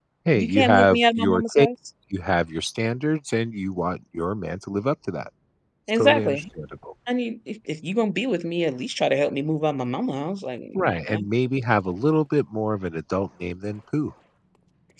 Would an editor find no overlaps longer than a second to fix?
No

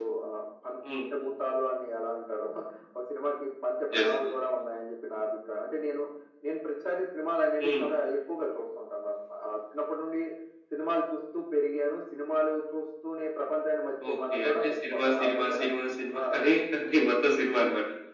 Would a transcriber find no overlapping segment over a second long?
No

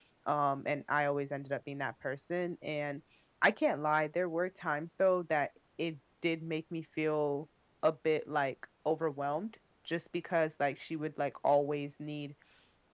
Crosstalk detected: No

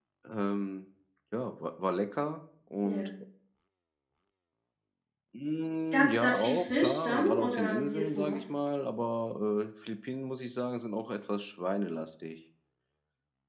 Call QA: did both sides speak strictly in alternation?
No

